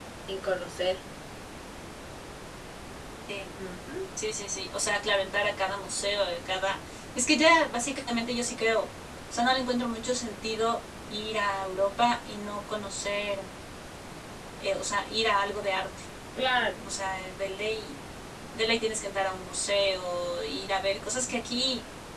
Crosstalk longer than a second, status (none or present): none